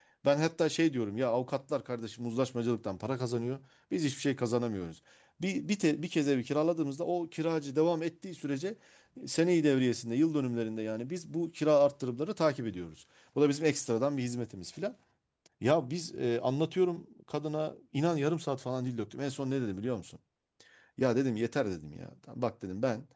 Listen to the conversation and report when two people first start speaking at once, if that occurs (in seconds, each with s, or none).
none